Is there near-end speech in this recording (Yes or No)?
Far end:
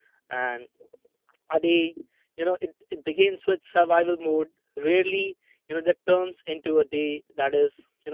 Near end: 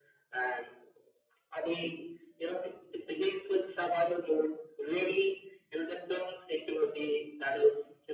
No